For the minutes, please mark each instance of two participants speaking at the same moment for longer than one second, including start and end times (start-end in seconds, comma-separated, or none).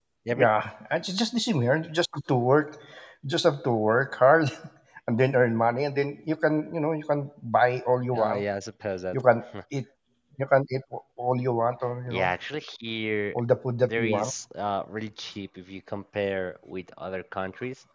none